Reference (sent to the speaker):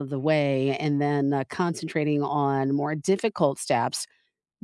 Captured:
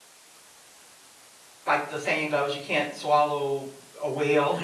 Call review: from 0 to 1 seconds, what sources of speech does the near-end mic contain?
neither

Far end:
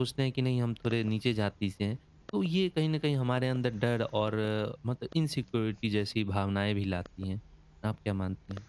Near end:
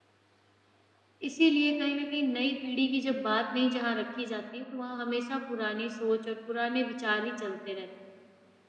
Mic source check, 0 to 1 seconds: neither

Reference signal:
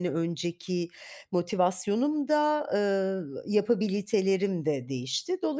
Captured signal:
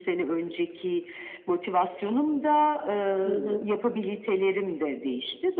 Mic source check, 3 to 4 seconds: both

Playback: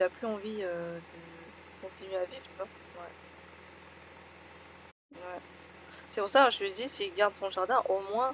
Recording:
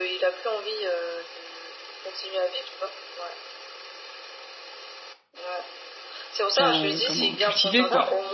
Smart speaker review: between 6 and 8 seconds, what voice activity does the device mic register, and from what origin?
both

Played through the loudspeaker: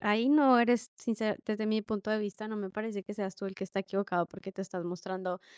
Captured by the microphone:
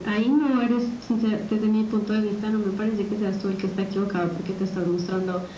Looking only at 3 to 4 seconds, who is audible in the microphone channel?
echo only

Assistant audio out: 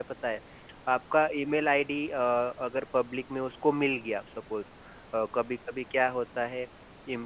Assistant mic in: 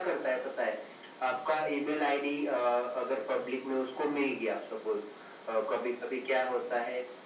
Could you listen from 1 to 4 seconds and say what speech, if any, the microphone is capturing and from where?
echo only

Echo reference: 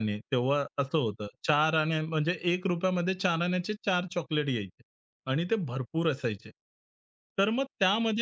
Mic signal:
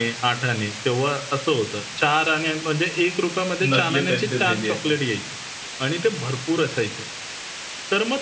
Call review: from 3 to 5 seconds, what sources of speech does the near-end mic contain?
both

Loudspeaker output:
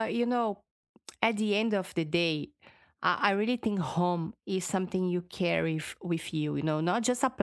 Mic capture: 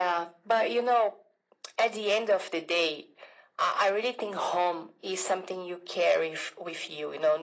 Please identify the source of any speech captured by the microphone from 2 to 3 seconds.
echo only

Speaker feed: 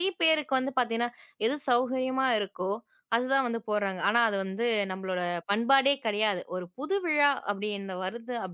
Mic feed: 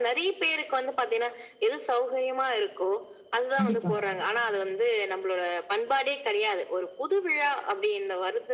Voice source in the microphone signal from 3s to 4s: both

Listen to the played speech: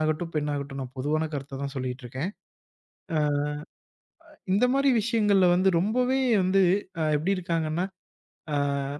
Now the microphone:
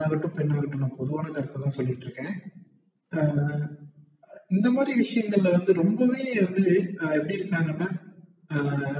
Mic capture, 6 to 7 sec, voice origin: echo only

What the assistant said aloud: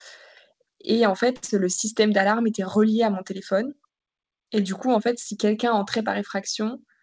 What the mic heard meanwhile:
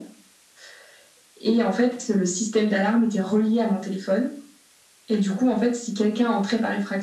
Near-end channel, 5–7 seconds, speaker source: echo only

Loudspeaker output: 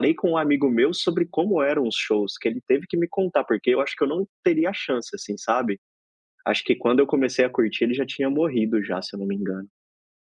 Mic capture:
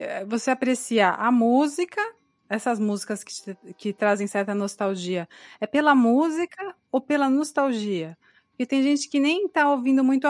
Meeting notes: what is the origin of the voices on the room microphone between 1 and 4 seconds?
user only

